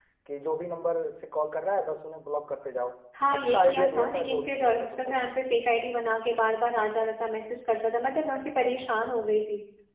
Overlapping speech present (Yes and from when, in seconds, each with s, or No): Yes, from 3.1 s